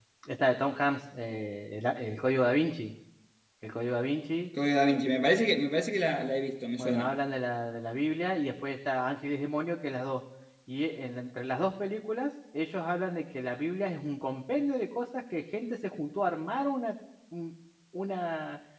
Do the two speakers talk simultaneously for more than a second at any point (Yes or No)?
No